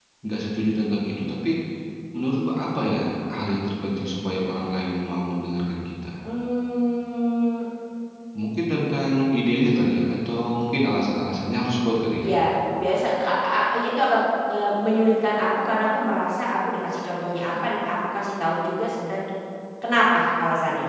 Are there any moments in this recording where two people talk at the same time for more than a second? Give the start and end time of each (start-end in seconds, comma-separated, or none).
none